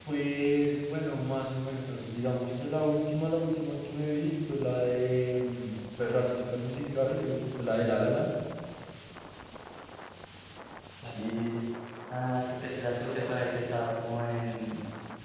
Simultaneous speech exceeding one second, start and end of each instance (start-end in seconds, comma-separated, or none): none